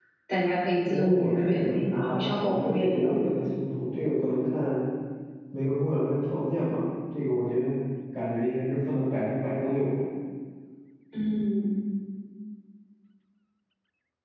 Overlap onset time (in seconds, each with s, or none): 0.9 s